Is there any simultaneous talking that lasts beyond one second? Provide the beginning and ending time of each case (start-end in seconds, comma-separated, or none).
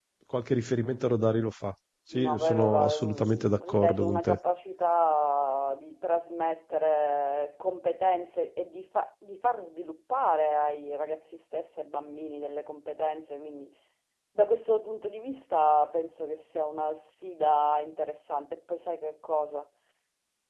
2.1-4.4